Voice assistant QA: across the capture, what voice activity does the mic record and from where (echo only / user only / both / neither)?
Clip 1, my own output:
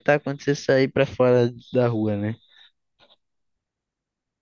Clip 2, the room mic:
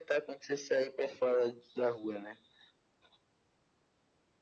echo only